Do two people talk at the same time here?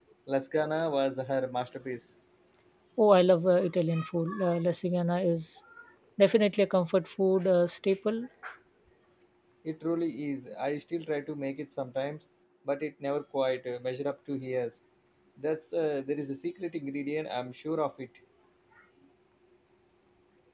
No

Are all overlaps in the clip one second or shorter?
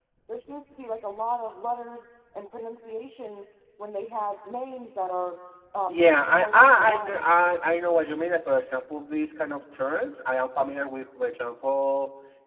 No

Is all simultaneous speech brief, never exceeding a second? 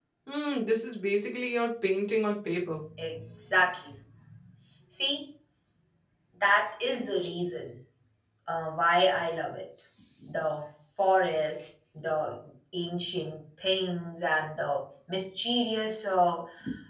Yes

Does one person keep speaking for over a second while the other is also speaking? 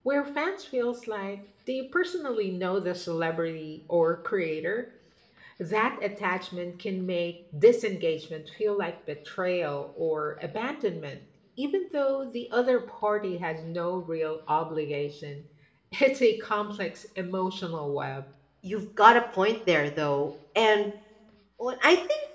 No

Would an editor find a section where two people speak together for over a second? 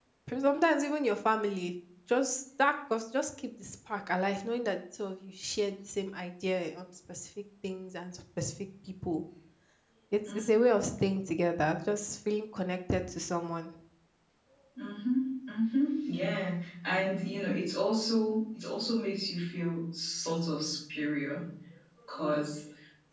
No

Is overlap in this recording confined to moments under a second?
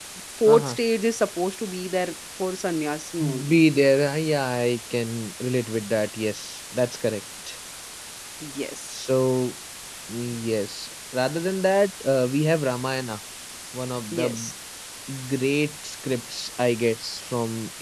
Yes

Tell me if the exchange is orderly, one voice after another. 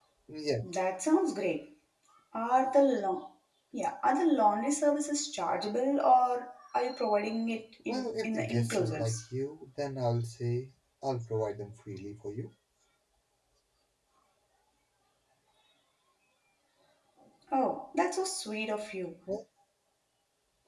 No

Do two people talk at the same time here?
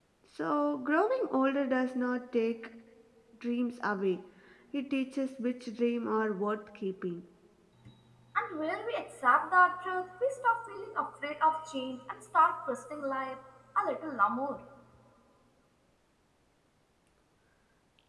No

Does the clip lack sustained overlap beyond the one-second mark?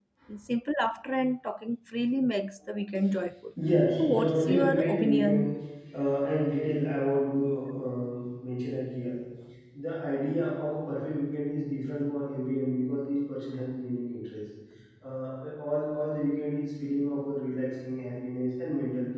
No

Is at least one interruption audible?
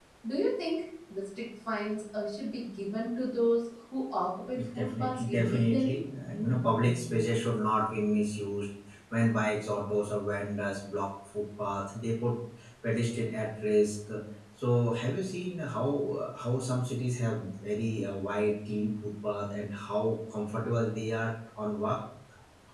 Yes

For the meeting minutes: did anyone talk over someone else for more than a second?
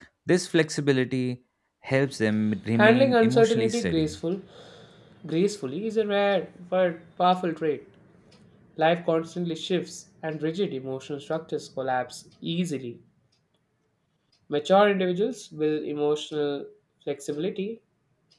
Yes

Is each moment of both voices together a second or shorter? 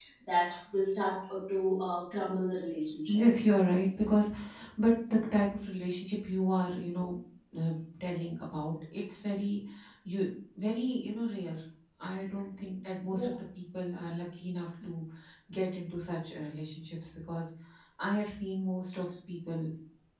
Yes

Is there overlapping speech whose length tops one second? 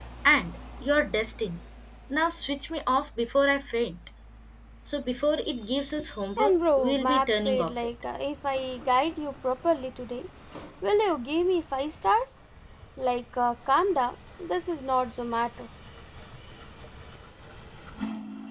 Yes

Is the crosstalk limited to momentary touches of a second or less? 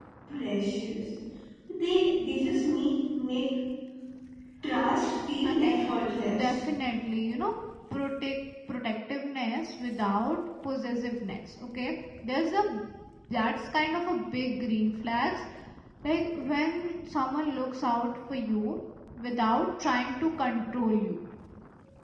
Yes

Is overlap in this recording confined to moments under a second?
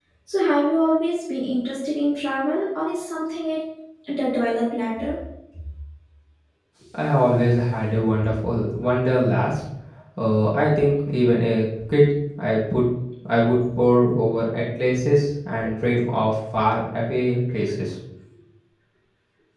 Yes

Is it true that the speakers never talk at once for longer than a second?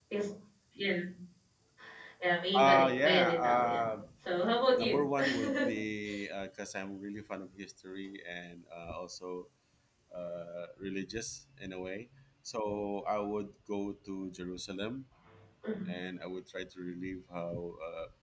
No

